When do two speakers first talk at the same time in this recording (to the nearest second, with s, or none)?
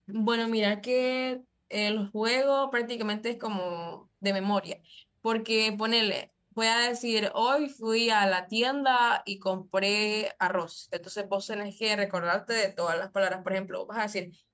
none